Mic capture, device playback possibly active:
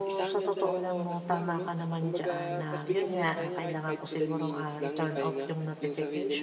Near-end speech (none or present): present